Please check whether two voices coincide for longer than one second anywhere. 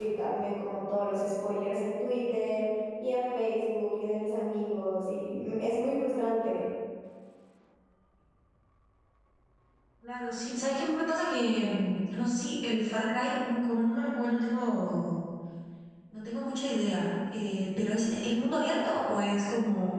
No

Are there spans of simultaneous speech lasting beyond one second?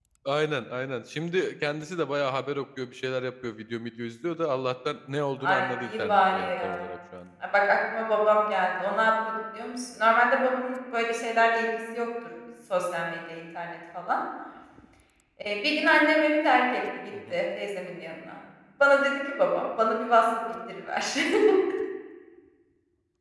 Yes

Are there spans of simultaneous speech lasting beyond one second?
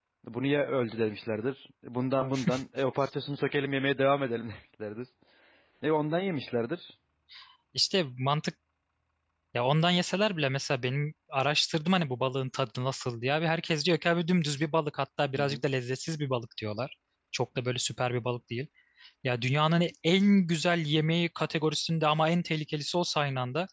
No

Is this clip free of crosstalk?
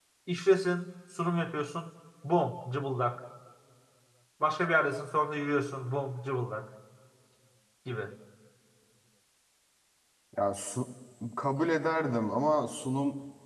Yes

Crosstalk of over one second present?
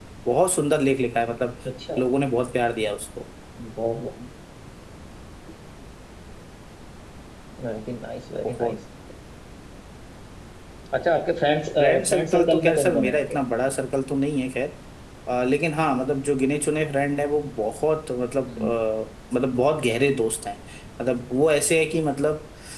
Yes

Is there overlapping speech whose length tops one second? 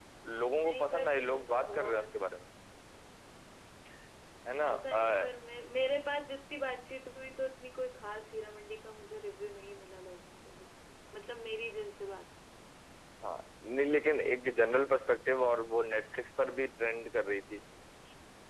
Yes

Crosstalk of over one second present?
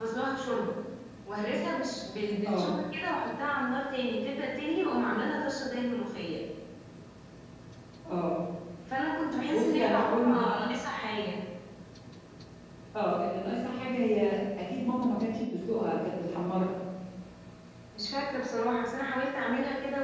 Yes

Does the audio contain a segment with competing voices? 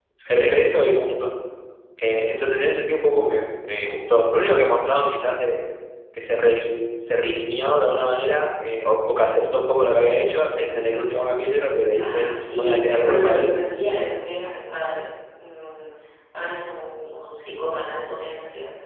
Yes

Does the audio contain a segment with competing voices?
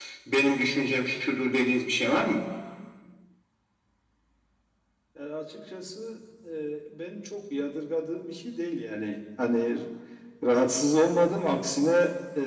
No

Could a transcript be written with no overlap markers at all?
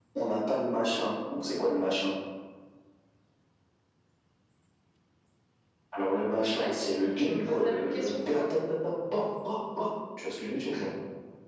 No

